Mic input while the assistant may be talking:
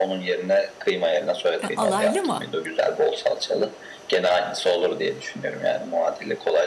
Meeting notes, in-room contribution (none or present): present